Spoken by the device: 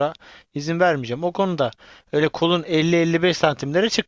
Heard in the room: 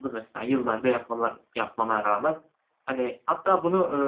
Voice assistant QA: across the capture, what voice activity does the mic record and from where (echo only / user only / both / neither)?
user only